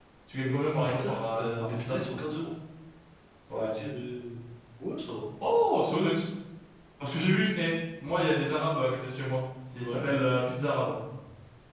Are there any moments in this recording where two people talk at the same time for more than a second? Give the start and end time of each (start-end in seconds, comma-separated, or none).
0.7-2.0